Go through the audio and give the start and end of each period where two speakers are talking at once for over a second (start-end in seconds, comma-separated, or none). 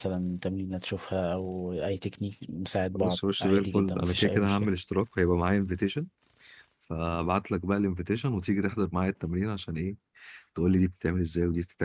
3.0-4.7